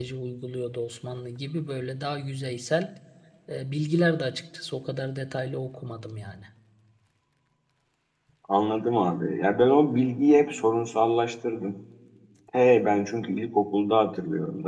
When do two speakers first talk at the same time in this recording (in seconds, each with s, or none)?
none